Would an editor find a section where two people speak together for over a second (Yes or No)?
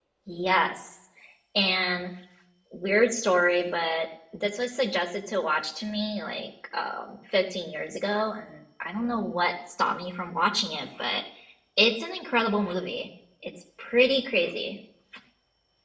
No